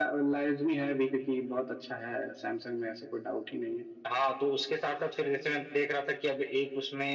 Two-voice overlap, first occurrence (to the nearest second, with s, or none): none